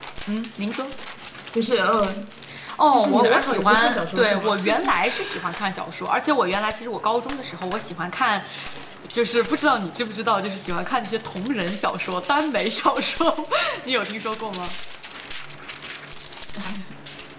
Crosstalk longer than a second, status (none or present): present